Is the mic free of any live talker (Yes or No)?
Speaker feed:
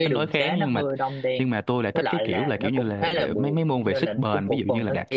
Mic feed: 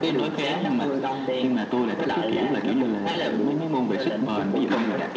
Yes